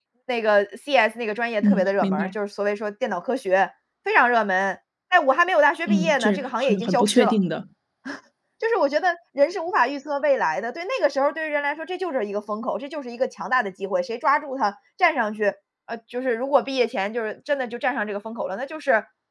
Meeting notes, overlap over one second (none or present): present